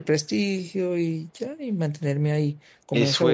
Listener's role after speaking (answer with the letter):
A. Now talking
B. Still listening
A